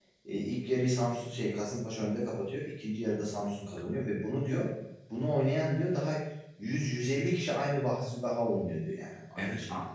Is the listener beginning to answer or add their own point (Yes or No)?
Yes